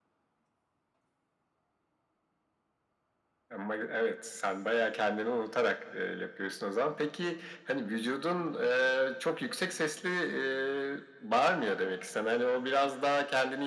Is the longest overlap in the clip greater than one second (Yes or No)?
No